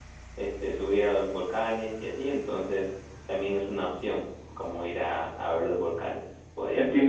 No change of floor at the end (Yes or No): No